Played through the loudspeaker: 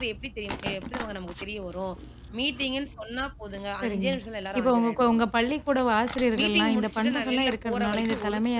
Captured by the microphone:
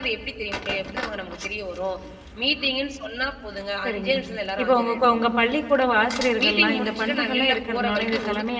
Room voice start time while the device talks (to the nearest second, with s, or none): none